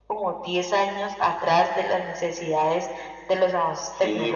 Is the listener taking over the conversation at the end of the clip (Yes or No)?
Yes